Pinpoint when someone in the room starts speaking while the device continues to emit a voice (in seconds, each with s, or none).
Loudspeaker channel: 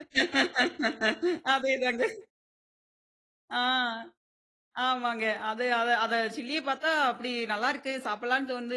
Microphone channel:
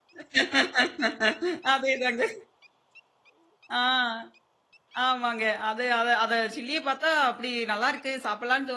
none